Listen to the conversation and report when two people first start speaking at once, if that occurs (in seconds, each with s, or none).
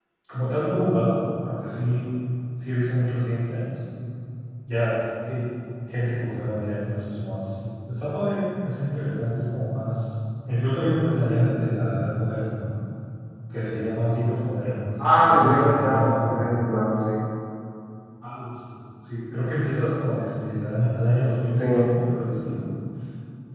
15.2 s